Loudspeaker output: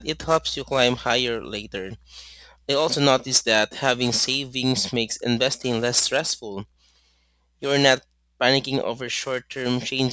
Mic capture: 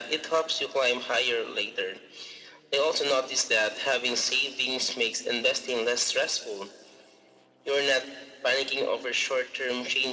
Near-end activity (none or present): none